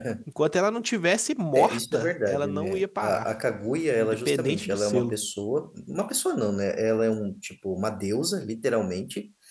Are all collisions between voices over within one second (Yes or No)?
No